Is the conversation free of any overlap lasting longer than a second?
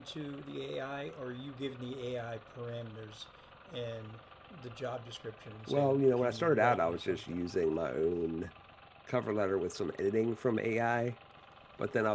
No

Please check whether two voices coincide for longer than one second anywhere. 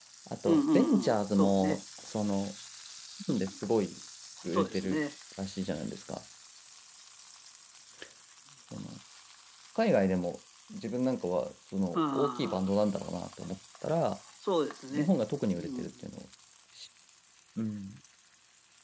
Yes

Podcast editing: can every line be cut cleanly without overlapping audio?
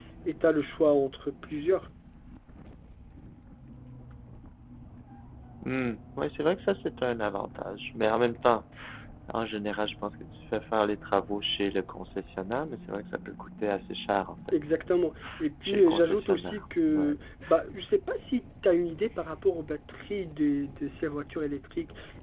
No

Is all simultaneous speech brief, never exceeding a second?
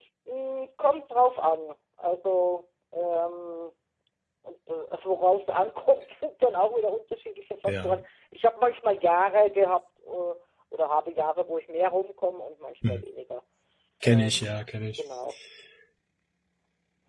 Yes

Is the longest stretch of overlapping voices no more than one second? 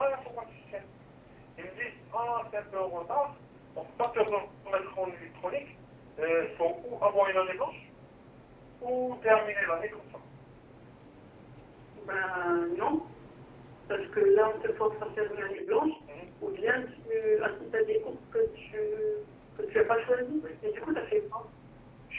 Yes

